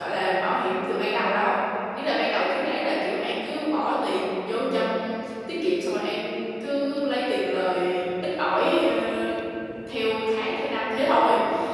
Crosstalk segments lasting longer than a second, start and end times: none

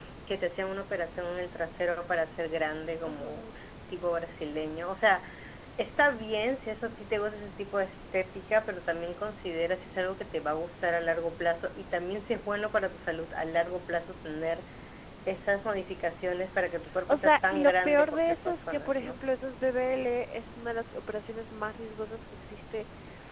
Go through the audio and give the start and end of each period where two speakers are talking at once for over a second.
17.1-19.2

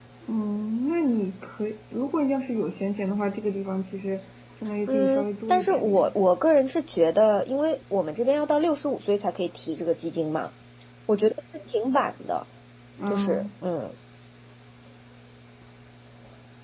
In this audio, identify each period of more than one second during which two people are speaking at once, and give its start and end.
4.9-6.1

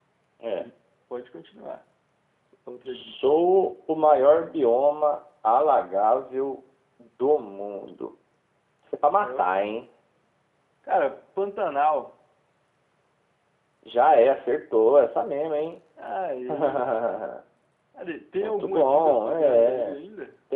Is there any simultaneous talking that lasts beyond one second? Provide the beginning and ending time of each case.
18.4-20.0

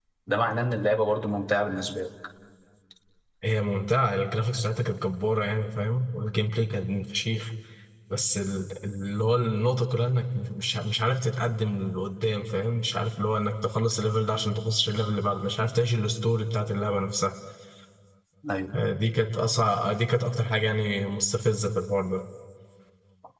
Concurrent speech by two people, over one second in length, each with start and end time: none

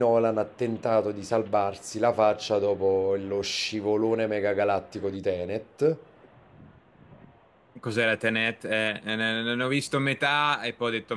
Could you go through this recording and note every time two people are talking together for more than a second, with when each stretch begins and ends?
none

